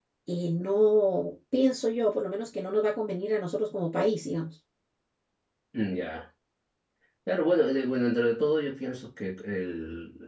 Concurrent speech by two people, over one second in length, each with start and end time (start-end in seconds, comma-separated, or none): none